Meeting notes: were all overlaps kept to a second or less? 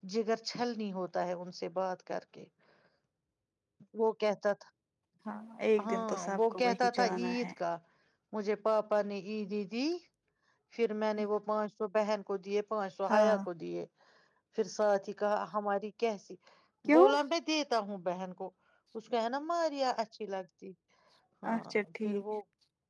No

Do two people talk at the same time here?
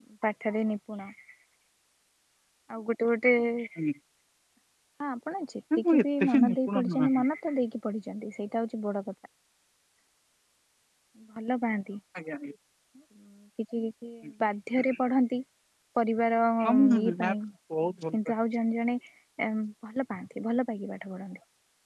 Yes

